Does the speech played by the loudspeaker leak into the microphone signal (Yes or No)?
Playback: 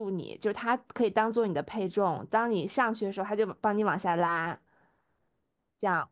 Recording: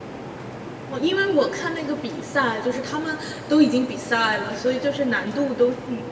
No